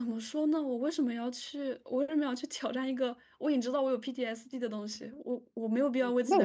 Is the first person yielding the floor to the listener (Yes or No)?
Yes